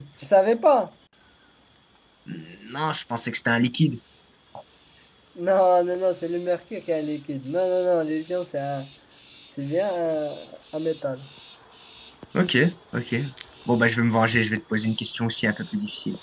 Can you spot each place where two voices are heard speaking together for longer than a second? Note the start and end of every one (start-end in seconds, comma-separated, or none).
none